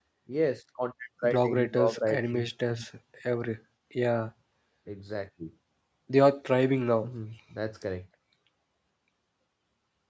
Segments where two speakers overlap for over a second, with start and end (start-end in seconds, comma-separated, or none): 1.2-2.8